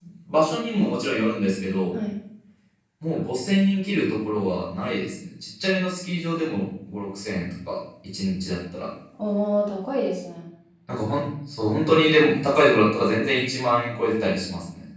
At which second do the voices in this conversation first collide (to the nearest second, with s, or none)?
none